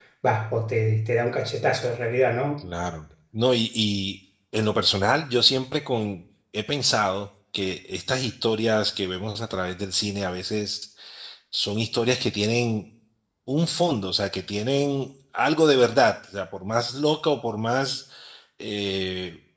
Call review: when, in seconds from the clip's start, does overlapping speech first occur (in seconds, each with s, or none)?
none